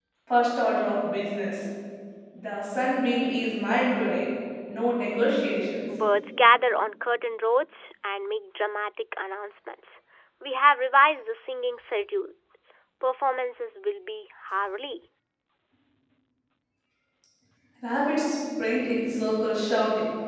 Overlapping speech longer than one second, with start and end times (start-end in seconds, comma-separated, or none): none